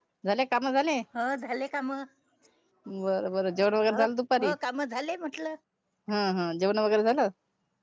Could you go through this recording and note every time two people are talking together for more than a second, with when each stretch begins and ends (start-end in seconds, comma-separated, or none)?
none